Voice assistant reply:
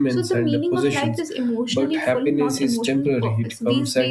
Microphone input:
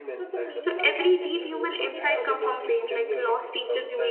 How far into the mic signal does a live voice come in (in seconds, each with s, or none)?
0.6 s